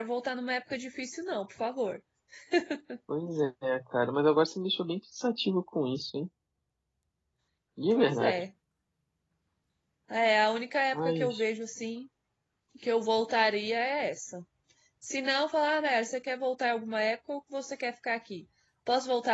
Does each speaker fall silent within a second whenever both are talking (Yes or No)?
Yes